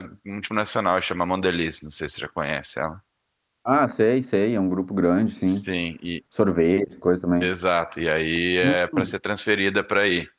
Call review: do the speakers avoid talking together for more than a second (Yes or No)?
Yes